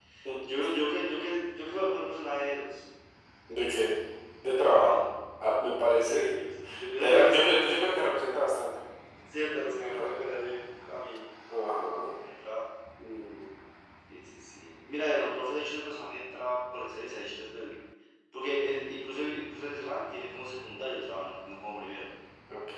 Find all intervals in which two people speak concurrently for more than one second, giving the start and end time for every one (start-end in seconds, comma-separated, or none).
none